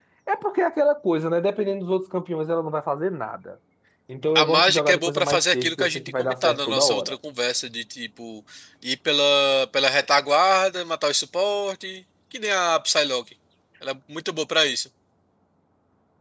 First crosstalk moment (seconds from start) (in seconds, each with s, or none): 4.3 s